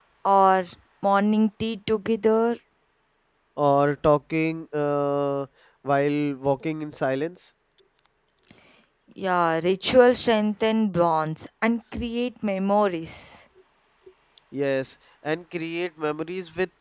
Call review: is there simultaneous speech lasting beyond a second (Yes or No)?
No